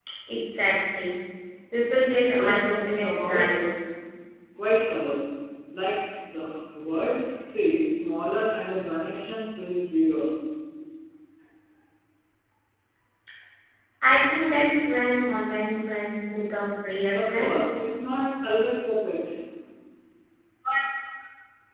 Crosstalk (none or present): present